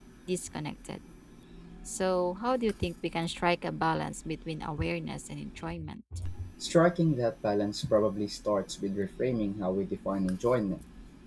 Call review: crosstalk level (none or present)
none